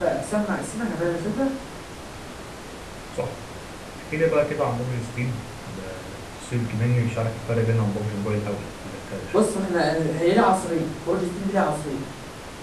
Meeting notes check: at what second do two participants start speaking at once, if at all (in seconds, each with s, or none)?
none